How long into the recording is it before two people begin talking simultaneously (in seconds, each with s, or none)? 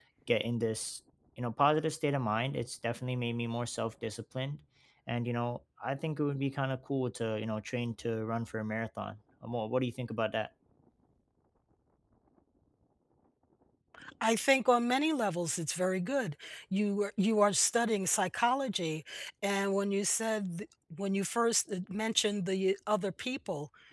none